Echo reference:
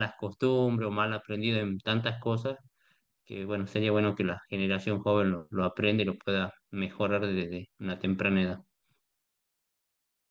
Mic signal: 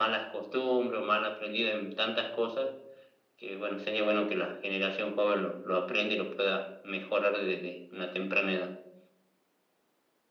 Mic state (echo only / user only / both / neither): echo only